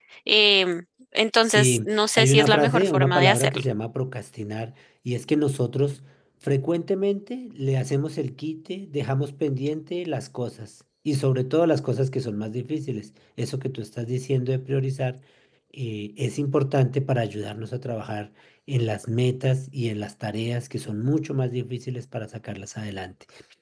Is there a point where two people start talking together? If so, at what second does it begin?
1.4 s

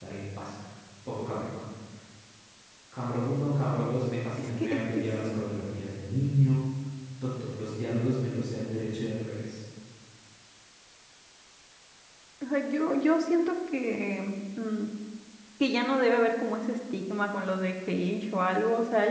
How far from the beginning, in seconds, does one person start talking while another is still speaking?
4.4 s

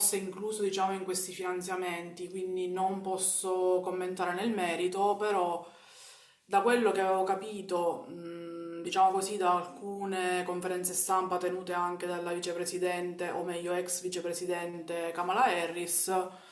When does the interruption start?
none

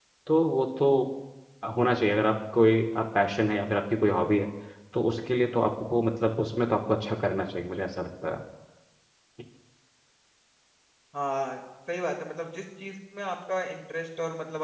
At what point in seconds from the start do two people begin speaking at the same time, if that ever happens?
none

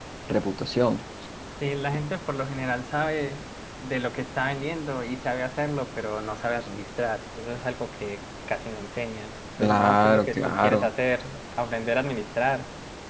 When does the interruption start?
9.6 s

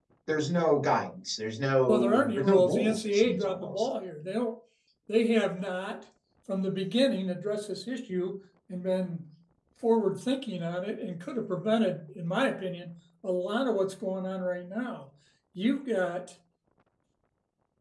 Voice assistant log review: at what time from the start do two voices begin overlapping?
1.9 s

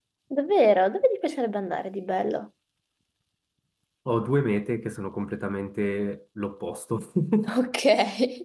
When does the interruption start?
none

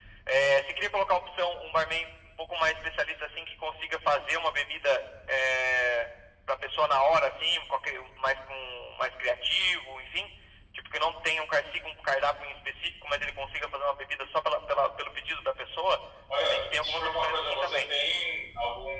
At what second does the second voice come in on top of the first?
16.5 s

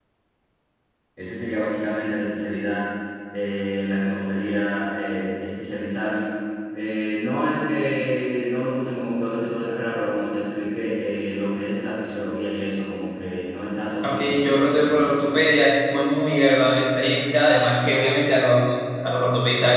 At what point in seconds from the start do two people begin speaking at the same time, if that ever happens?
14.0 s

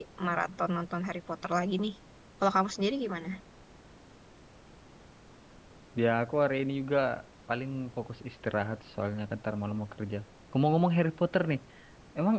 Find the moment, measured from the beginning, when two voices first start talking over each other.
none

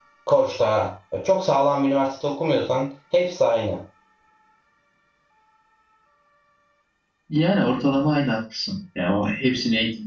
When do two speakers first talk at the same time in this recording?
none

